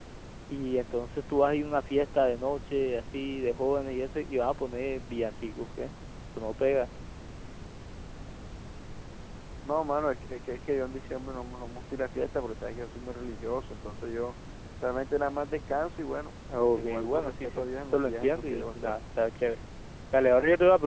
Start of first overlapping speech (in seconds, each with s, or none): 16.5 s